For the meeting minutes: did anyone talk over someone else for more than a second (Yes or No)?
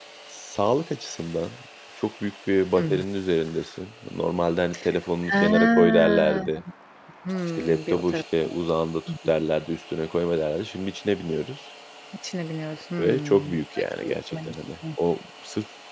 Yes